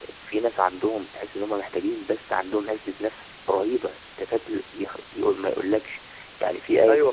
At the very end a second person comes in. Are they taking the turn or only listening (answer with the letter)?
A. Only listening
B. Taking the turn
B